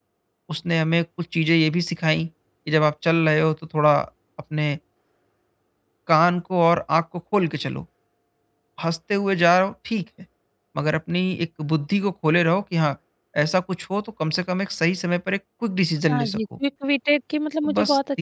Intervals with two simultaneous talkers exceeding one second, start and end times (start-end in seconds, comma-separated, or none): none